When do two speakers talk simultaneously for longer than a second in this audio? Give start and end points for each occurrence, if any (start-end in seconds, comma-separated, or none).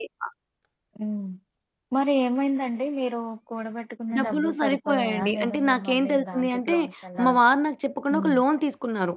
4.2-6.8